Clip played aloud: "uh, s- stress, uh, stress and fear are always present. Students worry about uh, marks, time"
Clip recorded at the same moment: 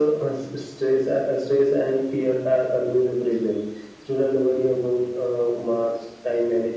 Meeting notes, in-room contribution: none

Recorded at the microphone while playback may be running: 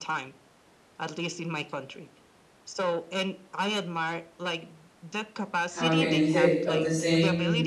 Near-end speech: present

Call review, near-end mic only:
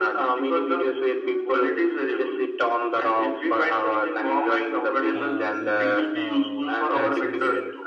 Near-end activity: present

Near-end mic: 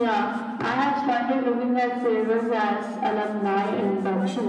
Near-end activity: present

